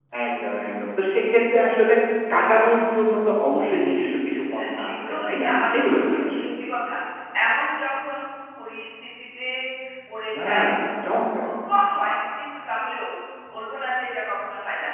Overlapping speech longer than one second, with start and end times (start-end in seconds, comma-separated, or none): 4.8-6.4